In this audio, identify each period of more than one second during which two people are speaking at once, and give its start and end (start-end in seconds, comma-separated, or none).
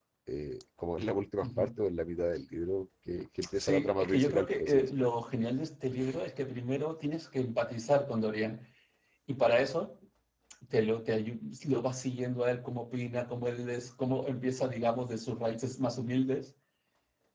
3.5-4.9